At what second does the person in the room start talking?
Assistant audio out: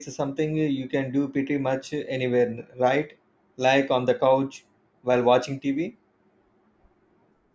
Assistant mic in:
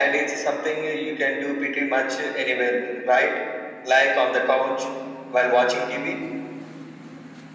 none

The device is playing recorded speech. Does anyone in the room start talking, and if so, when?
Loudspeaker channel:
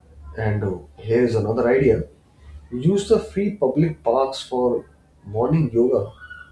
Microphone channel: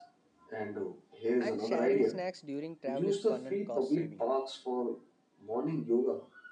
1.4 s

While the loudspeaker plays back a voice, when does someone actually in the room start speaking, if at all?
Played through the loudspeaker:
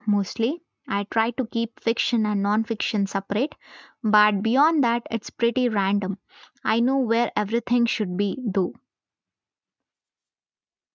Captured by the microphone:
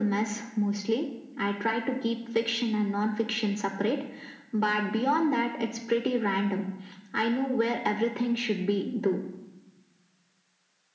none

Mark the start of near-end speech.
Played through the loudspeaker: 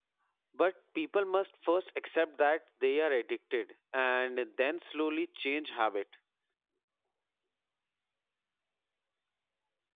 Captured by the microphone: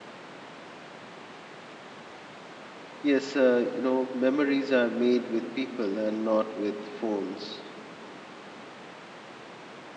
3.0 s

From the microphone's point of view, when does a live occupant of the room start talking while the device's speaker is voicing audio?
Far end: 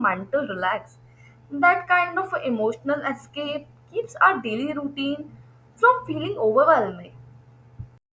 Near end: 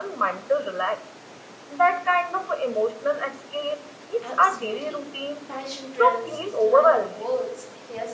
4.2 s

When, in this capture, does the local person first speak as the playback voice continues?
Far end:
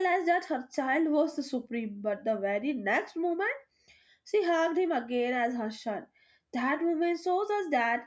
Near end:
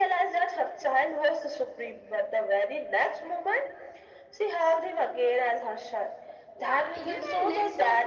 6.5 s

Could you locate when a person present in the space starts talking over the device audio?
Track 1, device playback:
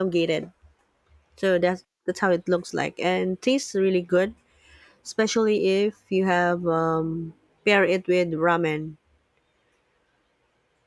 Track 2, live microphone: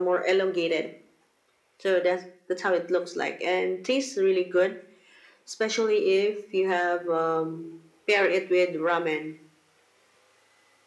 none

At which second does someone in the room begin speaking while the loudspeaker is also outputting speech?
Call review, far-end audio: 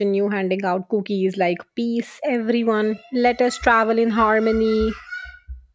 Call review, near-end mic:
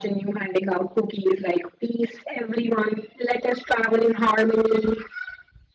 none

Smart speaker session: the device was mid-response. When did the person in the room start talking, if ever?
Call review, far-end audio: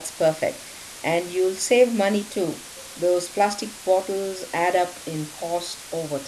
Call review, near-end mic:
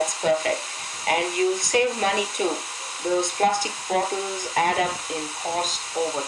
none

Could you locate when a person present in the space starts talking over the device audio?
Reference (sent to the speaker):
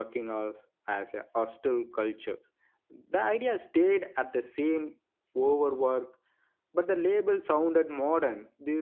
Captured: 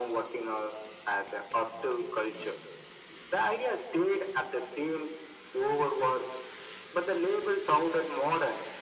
none

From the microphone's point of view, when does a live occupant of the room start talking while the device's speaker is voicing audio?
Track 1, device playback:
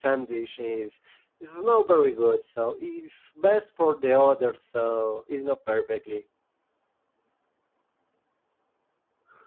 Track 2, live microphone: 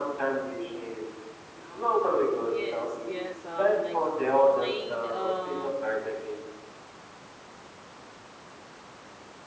2.4 s

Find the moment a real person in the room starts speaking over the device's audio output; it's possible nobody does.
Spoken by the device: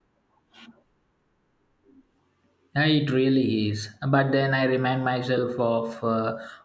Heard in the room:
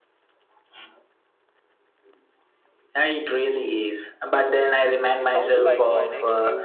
5.2 s

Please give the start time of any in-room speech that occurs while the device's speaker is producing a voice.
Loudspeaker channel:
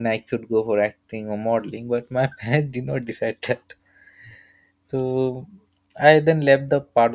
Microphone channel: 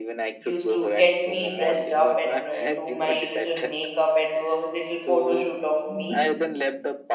0.4 s

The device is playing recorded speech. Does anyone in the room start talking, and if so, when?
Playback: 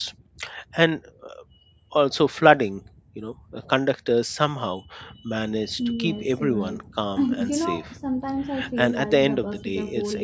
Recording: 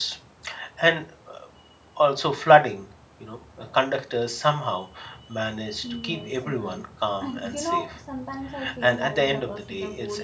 none

